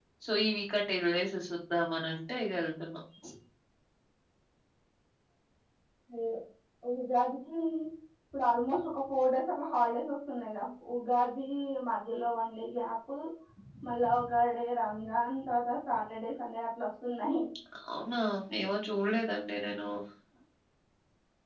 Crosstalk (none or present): none